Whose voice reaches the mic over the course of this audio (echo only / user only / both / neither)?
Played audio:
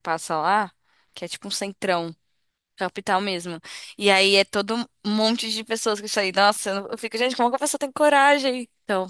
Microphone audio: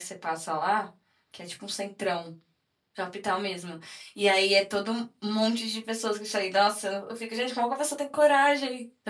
echo only